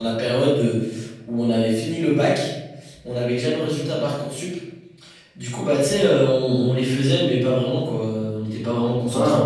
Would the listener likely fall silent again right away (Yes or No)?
No